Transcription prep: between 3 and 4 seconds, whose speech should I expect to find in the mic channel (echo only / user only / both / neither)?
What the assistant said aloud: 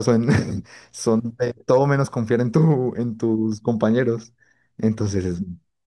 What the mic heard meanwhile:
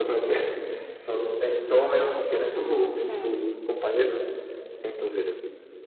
both